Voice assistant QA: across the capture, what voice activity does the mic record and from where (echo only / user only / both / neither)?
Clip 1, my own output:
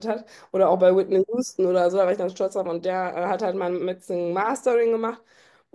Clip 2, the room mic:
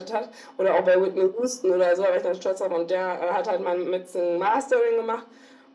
echo only